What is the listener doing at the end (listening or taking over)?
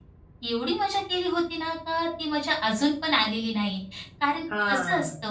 listening